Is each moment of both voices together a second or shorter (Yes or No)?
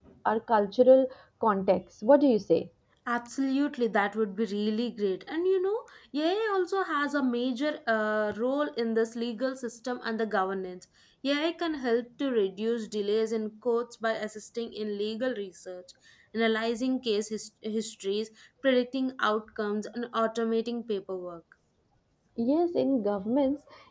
Yes